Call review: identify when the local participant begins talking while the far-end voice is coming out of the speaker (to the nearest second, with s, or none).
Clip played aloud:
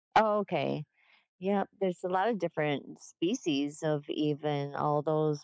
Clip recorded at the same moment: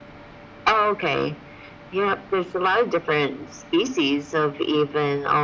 none